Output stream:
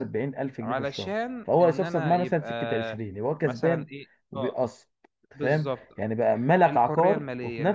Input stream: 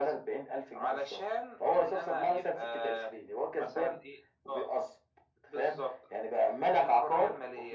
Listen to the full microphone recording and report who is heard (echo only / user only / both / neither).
echo only